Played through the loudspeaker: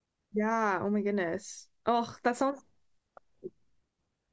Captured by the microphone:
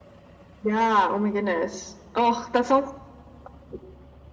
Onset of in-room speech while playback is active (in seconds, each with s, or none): none